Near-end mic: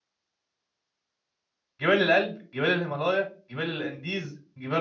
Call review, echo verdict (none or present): none